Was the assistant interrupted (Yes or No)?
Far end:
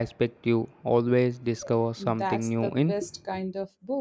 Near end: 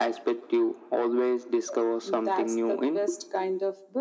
No